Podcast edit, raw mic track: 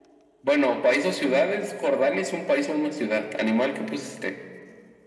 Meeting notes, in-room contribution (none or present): none